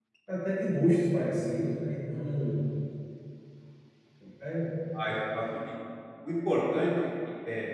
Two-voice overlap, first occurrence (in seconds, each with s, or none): none